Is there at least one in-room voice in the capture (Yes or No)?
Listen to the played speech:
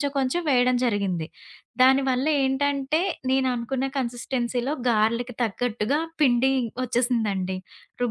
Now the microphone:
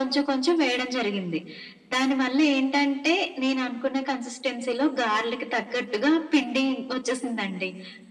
No